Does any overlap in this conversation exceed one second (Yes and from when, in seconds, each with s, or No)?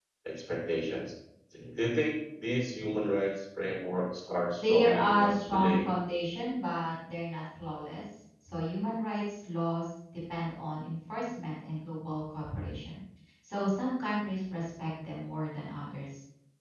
Yes, from 4.6 s